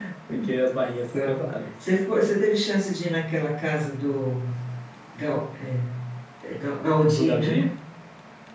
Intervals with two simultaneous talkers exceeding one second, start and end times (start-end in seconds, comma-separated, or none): none